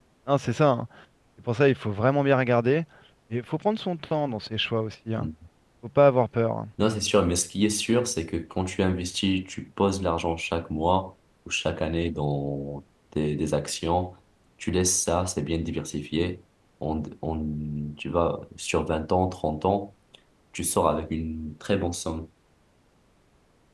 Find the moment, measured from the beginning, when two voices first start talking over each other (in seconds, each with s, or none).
none